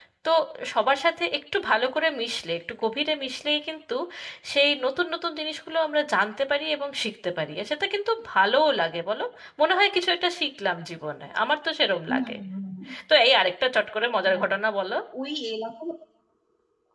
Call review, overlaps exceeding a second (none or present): none